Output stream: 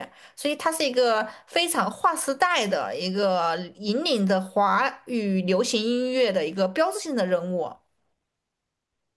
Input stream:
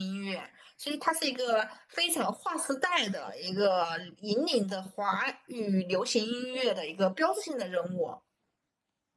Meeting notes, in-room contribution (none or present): none